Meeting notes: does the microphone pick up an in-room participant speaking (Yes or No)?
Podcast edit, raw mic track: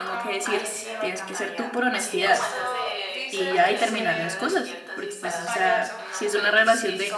Yes